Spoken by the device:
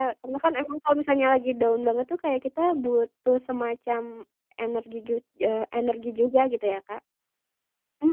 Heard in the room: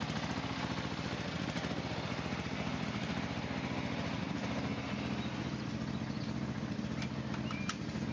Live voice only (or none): none